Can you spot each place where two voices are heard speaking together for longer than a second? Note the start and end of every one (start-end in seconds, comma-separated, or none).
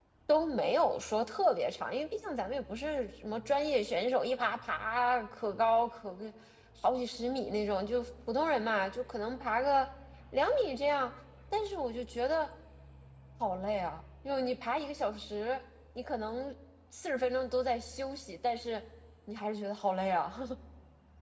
none